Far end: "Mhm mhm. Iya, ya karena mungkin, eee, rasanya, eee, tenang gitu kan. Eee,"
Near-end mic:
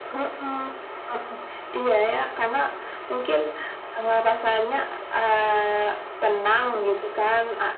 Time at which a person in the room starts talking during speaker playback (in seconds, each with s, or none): none